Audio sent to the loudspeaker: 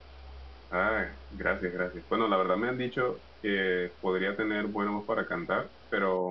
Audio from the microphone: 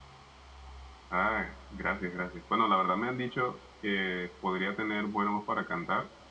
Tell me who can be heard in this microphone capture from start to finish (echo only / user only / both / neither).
echo only